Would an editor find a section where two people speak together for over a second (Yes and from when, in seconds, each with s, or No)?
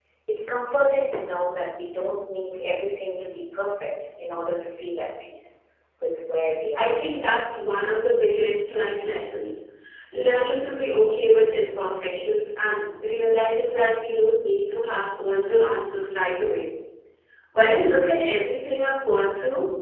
No